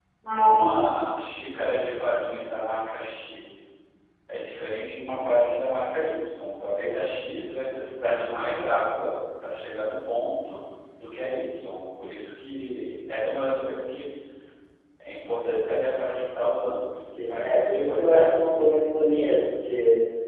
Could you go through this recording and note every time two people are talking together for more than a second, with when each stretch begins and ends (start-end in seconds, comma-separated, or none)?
17.0-18.4